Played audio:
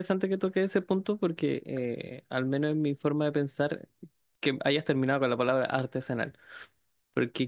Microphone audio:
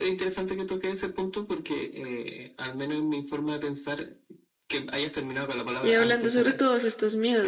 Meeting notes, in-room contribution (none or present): present